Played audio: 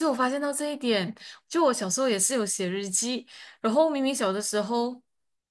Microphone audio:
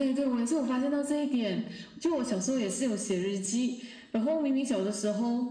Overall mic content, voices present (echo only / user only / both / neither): echo only